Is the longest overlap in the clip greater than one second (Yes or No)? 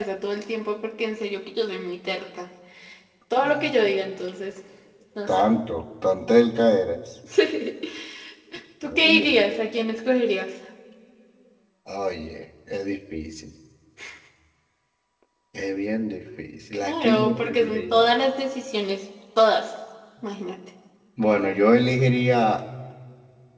Yes